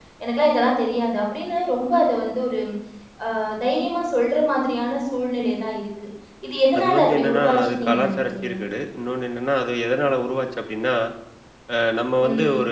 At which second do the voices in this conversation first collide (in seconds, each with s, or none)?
6.8 s